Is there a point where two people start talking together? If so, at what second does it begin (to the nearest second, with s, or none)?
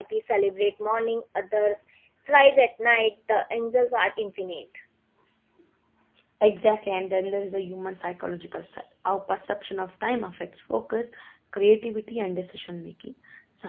none